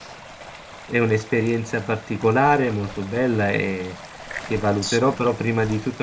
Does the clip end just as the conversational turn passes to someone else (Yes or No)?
No